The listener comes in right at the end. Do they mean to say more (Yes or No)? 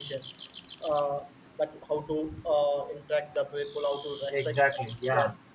No